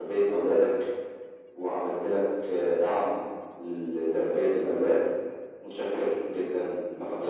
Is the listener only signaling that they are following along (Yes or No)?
No